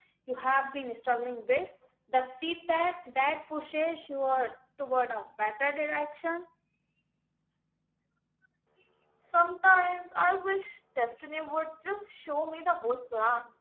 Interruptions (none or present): none